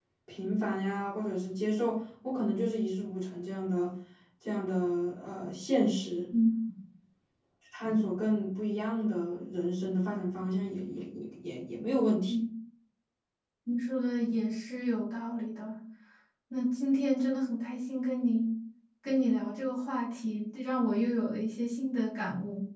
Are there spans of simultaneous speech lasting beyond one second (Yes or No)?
No